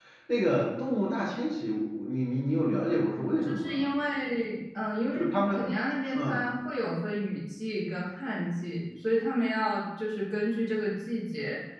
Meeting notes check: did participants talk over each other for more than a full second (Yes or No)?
No